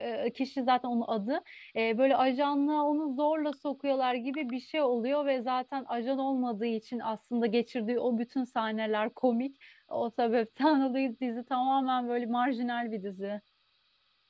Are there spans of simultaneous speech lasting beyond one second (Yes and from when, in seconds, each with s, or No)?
No